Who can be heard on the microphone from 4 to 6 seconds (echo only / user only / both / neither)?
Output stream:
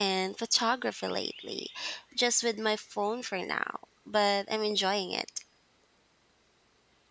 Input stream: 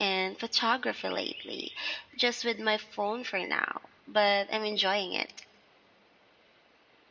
echo only